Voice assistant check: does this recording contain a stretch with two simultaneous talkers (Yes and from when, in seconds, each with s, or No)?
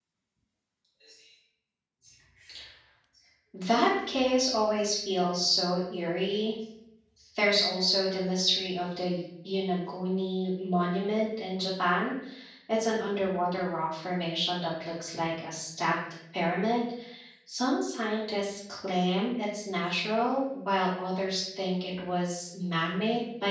No